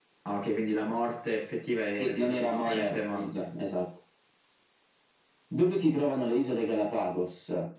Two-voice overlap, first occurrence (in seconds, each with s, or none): 1.9 s